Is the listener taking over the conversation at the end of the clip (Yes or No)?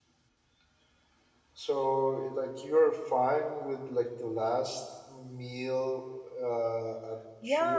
Yes